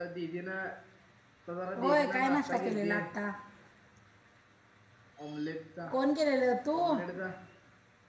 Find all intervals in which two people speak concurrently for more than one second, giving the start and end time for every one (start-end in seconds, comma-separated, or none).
1.8-3.0